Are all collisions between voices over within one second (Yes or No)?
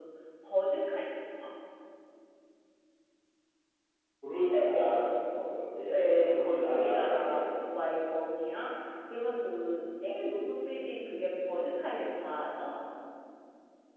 No